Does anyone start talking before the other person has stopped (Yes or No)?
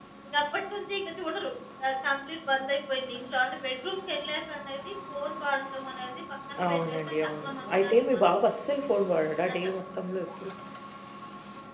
Yes